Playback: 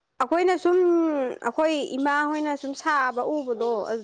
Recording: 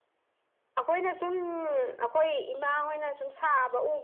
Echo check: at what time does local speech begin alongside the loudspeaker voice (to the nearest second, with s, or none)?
none